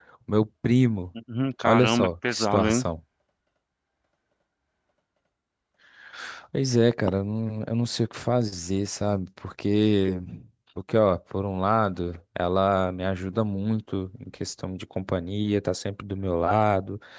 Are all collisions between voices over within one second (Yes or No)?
No